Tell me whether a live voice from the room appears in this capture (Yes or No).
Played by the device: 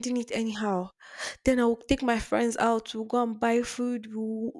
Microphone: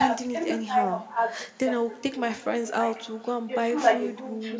Yes